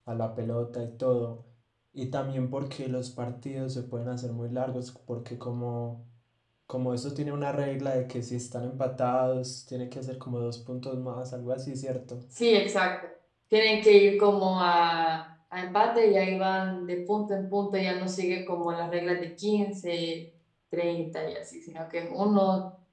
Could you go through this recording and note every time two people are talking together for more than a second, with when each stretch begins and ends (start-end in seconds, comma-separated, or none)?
none